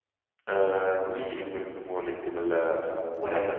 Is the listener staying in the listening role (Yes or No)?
No